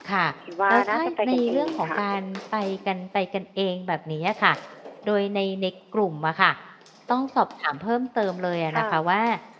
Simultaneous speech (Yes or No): Yes